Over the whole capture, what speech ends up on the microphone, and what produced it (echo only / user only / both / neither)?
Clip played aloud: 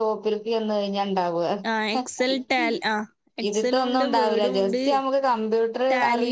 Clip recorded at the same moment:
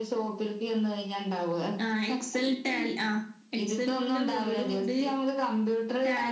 echo only